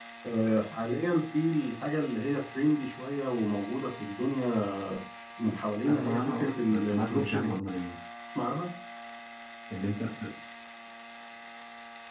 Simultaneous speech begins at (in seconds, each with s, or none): 5.9 s